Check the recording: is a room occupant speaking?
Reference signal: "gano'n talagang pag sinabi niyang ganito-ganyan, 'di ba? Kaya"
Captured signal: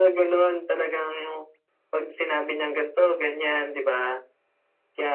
No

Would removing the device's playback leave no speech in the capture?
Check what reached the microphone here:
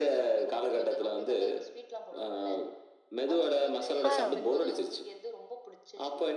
No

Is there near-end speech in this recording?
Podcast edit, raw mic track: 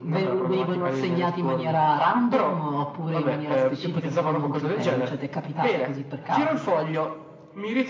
No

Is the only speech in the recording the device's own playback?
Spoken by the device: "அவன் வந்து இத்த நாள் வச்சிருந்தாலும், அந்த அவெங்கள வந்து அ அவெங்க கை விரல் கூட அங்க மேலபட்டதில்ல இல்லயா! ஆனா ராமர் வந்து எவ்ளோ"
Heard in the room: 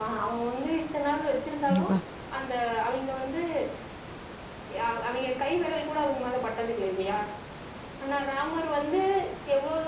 No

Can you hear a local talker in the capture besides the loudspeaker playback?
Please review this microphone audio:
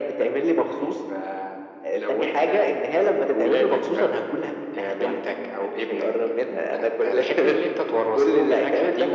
No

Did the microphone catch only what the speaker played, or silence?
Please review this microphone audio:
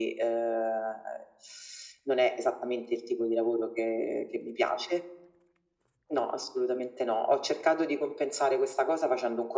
Yes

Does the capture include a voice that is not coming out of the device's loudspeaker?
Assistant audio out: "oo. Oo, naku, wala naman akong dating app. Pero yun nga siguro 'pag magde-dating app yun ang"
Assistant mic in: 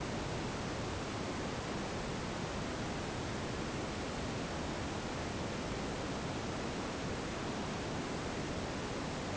No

